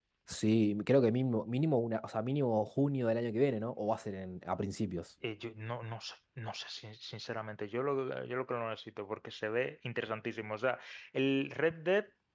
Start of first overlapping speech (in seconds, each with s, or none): none